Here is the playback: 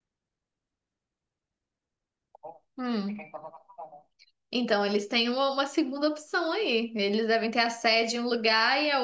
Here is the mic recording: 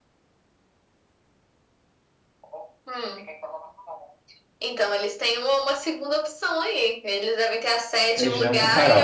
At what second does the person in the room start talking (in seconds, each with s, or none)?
8.1 s